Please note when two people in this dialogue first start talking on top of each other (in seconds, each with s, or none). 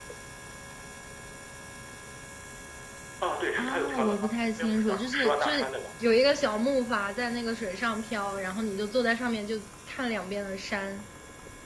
3.6 s